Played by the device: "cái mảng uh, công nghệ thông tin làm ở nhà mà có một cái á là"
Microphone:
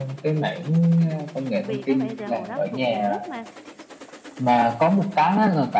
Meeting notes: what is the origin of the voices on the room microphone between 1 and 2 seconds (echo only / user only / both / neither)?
both